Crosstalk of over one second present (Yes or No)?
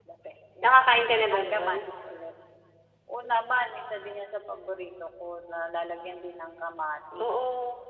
No